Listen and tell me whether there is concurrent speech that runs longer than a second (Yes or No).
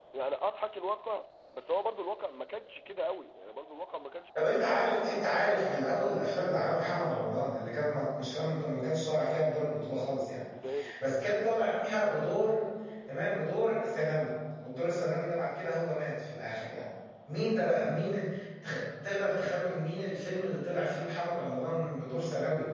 No